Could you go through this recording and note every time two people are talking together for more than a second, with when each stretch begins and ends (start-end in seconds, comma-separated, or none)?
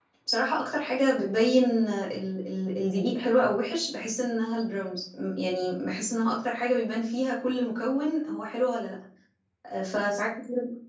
none